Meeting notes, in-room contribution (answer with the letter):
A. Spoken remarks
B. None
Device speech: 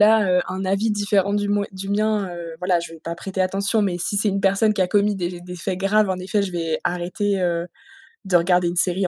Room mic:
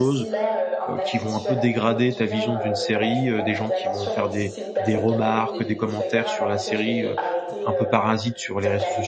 A